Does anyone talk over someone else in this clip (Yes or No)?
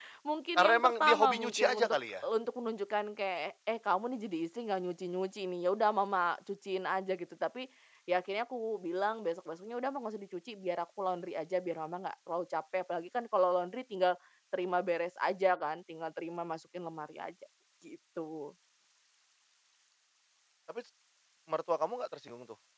Yes